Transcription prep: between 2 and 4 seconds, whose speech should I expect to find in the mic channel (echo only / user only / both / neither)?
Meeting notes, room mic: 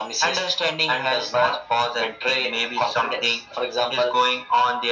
echo only